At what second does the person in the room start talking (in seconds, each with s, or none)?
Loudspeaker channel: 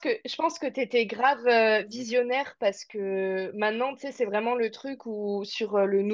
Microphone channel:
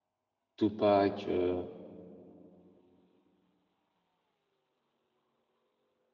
0.6 s